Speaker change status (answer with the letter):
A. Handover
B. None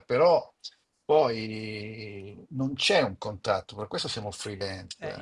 A